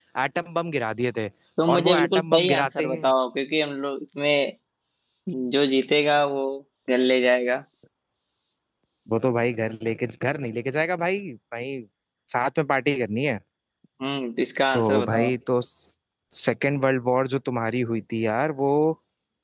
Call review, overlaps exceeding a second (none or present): present